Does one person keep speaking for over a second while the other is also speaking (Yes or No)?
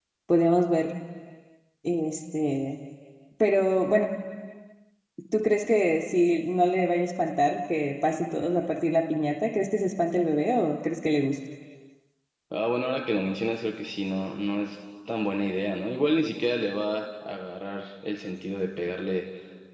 No